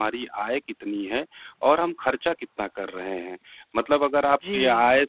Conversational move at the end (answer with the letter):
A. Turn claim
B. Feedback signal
B